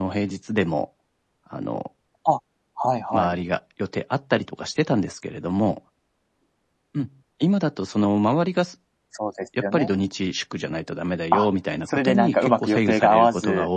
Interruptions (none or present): present